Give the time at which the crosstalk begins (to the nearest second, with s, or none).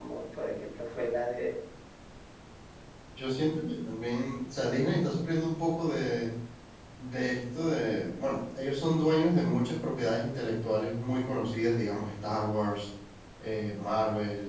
none